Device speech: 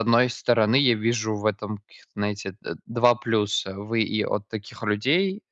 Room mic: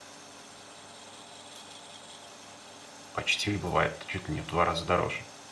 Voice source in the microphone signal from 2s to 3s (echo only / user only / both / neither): neither